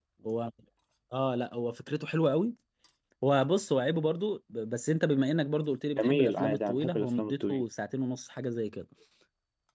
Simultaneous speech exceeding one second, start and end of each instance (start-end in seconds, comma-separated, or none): 6.0-7.6